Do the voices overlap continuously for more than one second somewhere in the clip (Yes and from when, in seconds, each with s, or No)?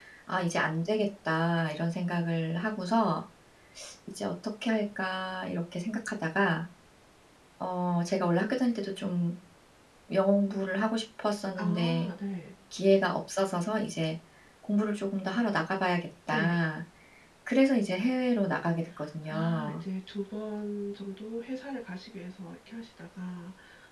No